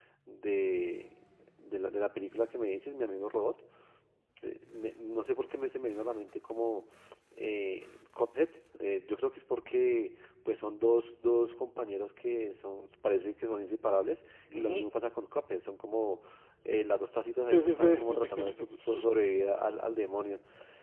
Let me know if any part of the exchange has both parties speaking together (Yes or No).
Yes